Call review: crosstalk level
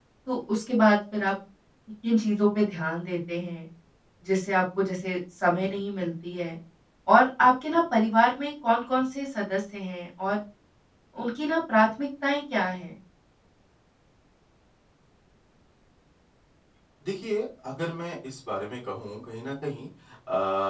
none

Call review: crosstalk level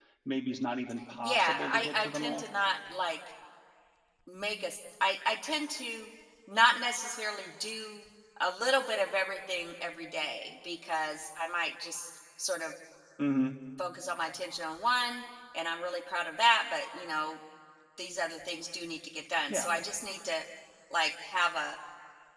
present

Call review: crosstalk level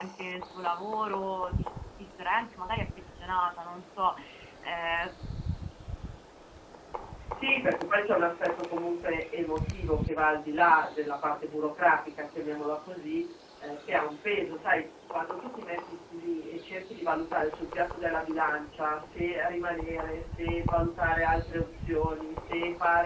none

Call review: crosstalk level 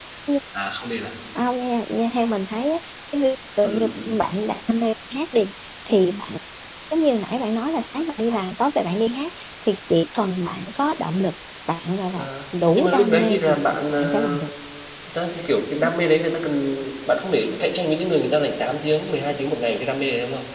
present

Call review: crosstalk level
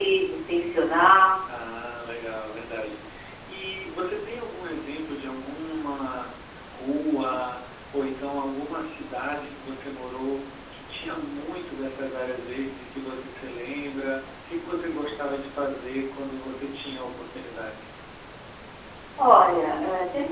none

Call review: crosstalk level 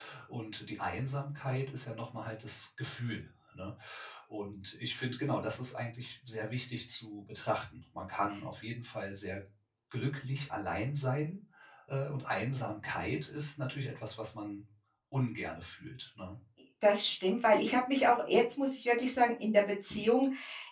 none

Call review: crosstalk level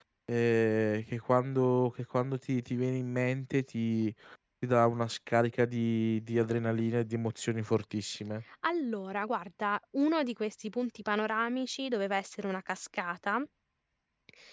none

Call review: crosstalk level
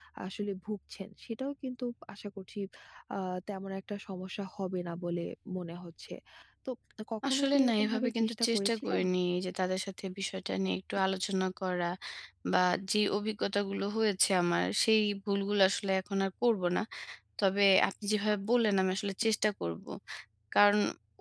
present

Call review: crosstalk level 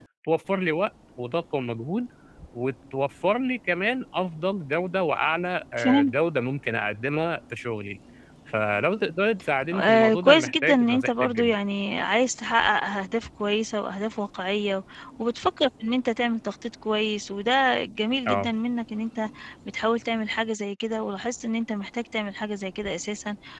present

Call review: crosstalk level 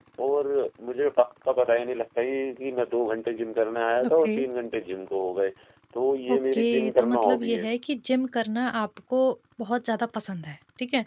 present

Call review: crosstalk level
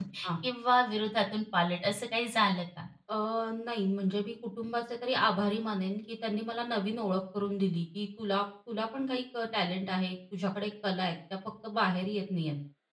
none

